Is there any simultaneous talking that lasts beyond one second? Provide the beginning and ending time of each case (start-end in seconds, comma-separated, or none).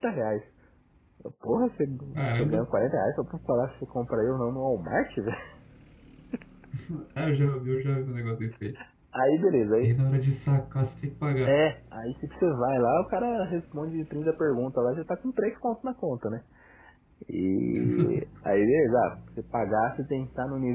none